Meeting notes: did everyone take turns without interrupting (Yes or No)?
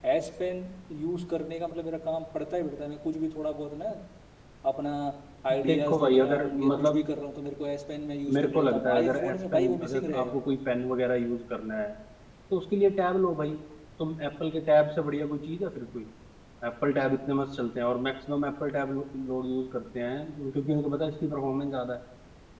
No